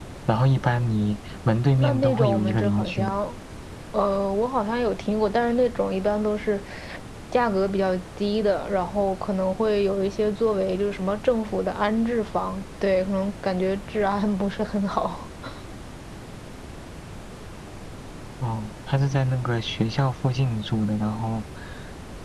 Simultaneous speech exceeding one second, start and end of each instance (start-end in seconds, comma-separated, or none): 1.8-3.1